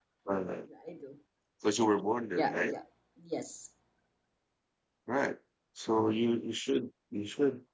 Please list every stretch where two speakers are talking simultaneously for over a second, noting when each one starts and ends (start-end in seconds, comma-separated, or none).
none